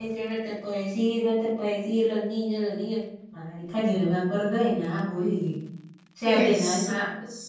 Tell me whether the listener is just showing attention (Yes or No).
No